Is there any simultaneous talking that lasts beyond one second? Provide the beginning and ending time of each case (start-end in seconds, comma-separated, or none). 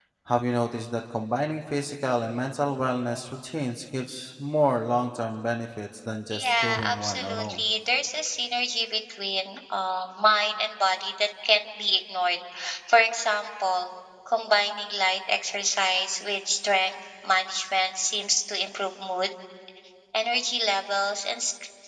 6.3-7.6